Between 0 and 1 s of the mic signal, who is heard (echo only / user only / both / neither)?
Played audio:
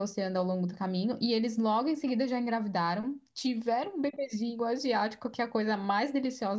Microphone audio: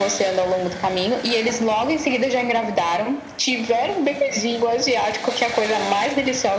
echo only